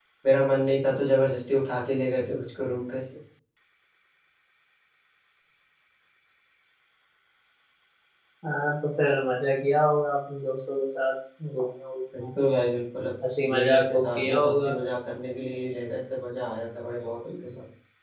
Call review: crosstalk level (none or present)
present